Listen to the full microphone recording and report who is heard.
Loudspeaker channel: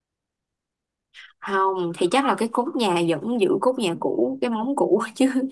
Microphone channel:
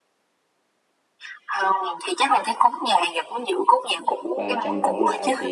both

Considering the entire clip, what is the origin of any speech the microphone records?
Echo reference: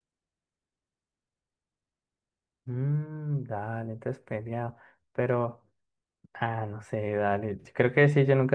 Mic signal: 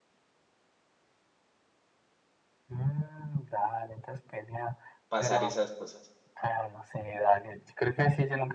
both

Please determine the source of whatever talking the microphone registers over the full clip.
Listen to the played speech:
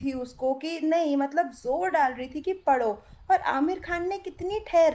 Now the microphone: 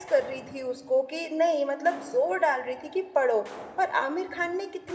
echo only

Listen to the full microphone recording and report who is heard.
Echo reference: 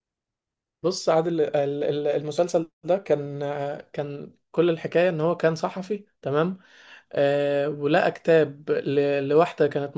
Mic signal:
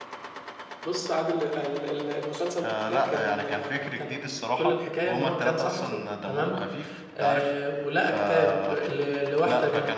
both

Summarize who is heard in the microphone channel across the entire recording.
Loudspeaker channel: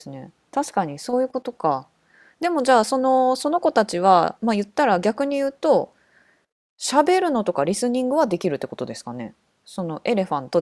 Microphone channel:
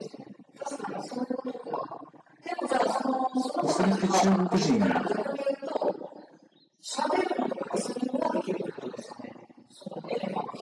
both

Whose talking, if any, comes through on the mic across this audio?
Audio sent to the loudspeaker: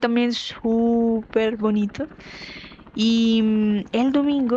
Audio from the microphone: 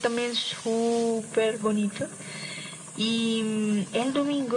echo only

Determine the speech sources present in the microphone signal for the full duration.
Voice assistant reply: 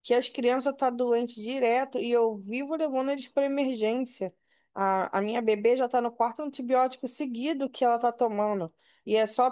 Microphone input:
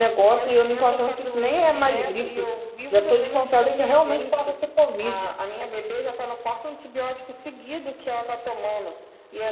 both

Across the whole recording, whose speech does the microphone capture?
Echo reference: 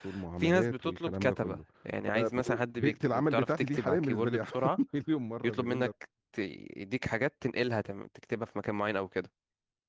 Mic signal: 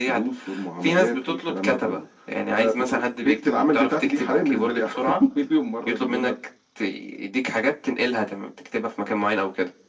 echo only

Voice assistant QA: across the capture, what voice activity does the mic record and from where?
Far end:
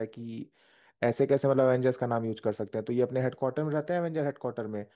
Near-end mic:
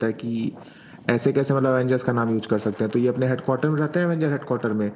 echo only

